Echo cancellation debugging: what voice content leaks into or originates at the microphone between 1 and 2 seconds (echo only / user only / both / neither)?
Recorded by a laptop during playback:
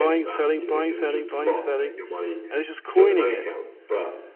both